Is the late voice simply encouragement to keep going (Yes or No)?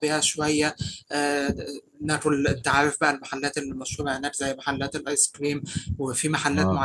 Yes